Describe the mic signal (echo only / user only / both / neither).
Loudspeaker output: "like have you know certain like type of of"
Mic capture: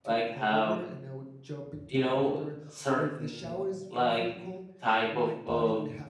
both